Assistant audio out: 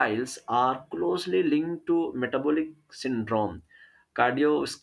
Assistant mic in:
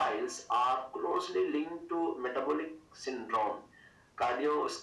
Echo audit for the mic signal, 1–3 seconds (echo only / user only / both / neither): echo only